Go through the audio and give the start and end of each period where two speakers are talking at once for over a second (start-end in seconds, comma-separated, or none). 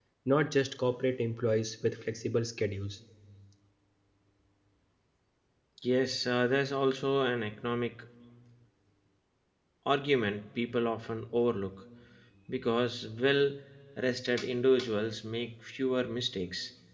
none